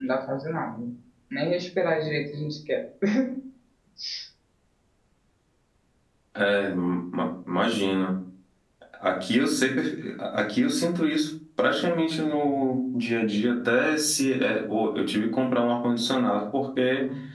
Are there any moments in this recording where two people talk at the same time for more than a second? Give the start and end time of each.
none

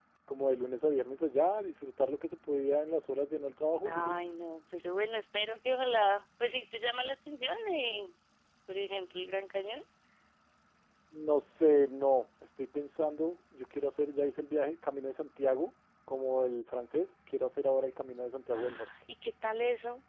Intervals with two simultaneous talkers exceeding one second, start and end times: none

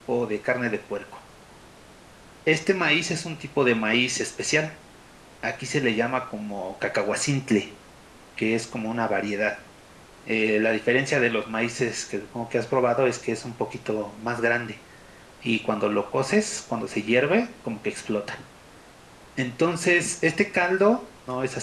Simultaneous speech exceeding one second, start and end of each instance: none

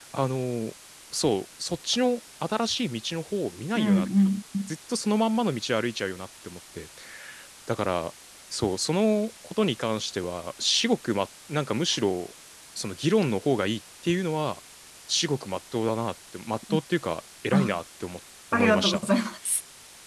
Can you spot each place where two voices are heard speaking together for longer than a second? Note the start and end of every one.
none

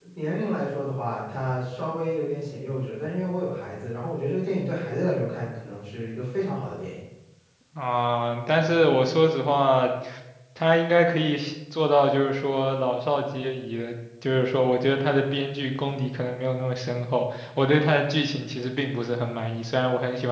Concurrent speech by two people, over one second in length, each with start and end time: none

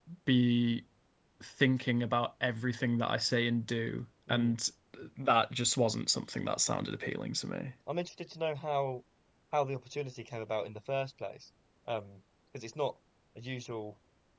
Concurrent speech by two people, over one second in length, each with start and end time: none

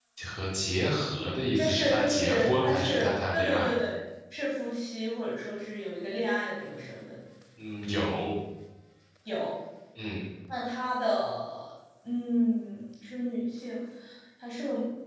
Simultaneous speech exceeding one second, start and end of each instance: 1.6-3.7

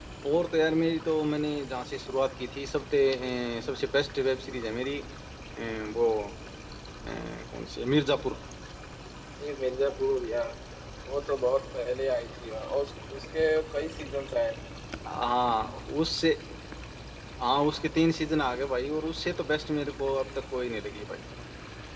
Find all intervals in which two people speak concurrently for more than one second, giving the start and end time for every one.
none

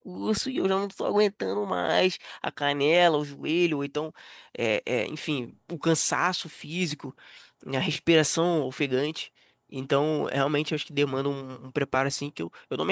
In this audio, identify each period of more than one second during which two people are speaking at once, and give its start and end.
none

